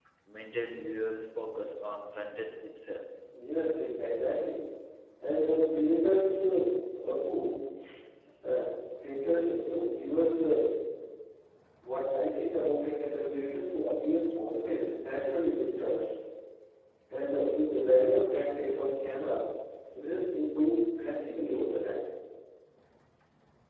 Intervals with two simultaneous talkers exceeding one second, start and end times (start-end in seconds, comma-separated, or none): none